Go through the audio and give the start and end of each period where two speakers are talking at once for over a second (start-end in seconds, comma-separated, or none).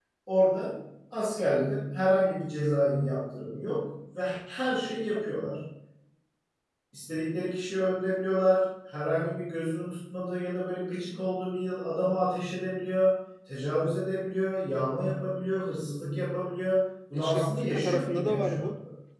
17.1-18.7